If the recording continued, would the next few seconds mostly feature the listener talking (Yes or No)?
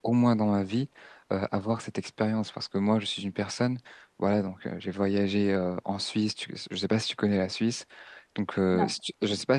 No